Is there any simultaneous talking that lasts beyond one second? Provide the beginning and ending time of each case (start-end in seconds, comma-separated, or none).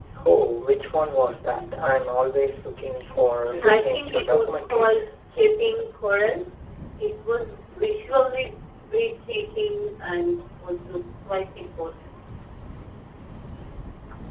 3.4-5.1